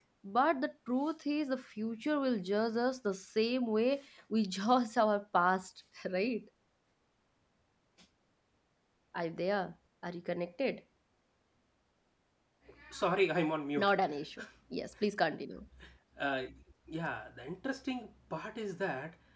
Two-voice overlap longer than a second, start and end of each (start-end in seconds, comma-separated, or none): none